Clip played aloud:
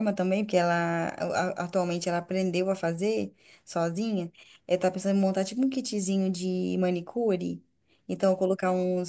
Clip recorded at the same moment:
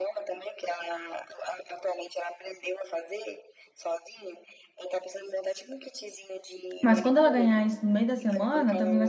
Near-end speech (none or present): present